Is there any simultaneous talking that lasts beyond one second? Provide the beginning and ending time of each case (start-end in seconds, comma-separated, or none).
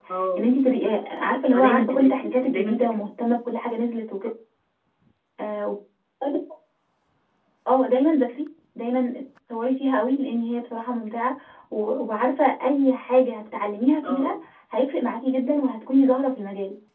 1.5-3.1